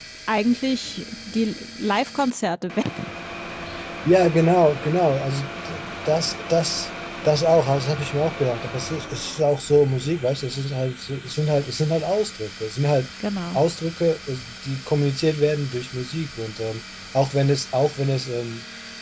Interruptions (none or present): none